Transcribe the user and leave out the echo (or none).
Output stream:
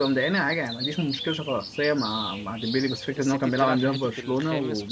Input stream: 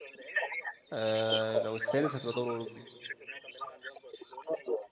آه، لو السادس هتبقى دوري اوروبي